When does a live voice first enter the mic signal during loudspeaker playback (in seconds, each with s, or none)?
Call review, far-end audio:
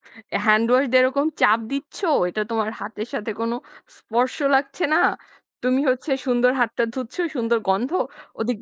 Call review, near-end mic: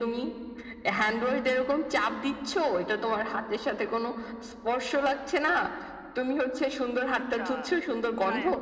7.2 s